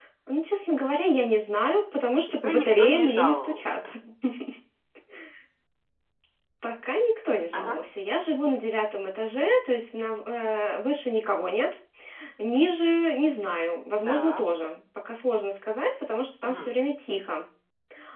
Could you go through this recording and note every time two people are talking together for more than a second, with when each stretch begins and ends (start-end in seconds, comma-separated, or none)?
2.4-3.9